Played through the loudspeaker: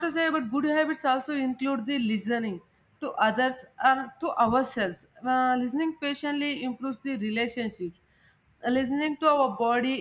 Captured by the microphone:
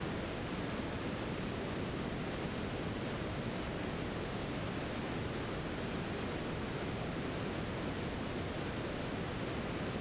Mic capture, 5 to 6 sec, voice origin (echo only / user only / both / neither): neither